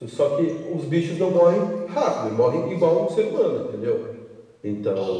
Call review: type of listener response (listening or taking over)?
taking over